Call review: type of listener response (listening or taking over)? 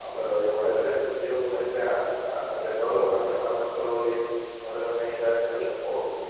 taking over